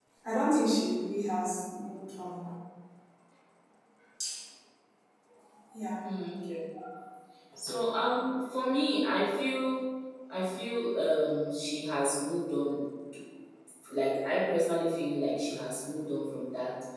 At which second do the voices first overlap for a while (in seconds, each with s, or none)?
none